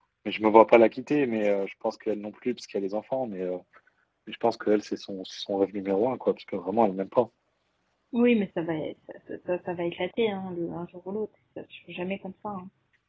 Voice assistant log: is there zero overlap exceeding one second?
Yes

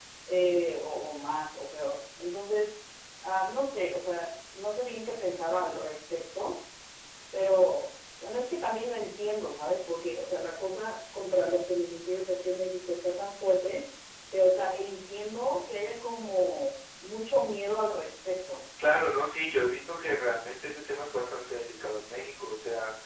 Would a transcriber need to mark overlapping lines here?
No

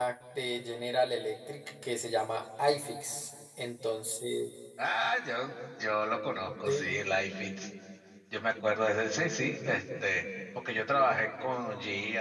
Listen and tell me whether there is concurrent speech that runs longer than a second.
No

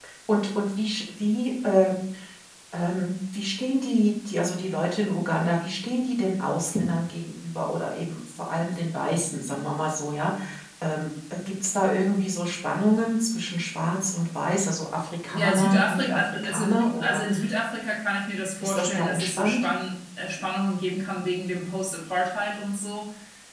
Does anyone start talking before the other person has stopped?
Yes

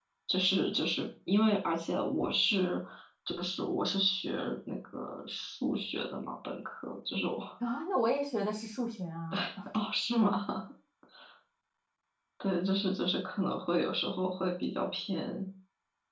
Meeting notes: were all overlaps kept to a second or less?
Yes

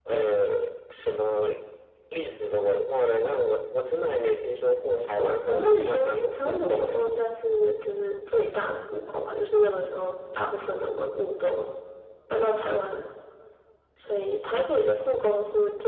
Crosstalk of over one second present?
Yes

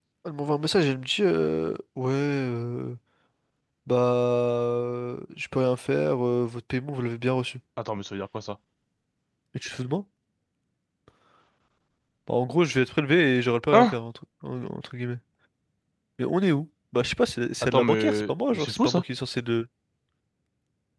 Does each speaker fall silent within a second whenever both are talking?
No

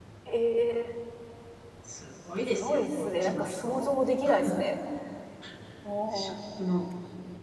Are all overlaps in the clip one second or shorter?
No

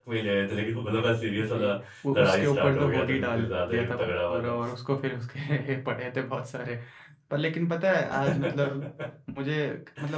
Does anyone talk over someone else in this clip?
Yes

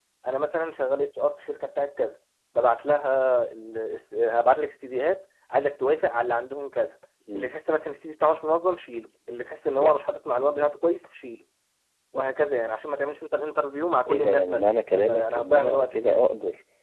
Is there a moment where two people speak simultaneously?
Yes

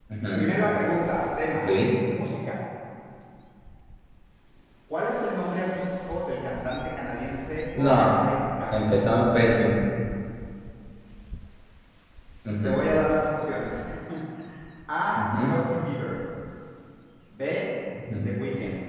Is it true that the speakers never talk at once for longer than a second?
Yes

